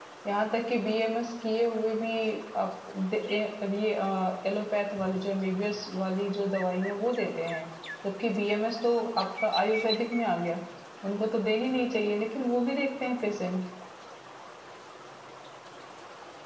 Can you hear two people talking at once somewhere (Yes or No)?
No